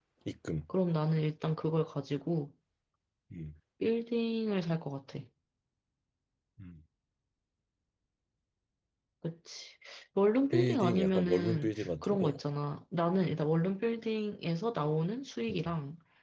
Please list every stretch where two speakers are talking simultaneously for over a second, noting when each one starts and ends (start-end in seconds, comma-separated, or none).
10.5-12.4